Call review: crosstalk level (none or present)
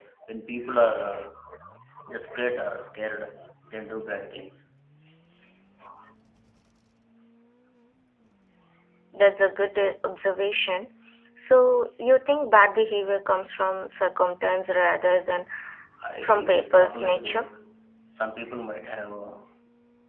present